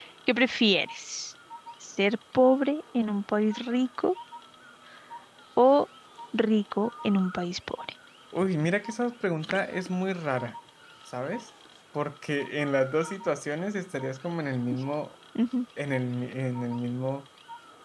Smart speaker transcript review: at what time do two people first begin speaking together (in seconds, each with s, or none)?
none